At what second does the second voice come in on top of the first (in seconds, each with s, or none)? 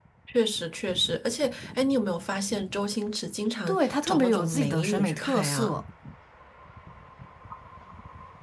3.7 s